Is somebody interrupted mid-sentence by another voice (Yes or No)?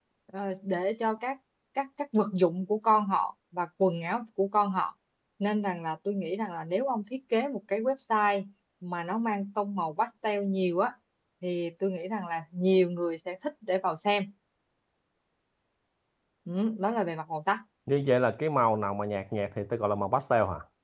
No